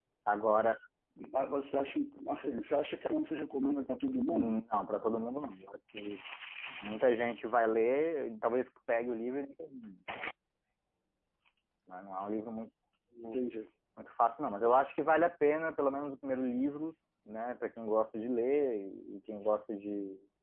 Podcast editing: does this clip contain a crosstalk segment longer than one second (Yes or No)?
No